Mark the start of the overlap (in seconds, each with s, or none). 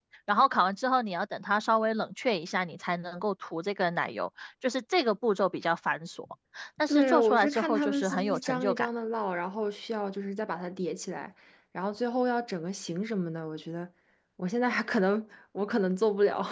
6.9 s